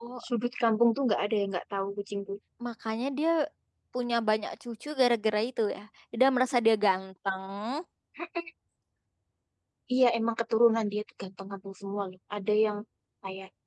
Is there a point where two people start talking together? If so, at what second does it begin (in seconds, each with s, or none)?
none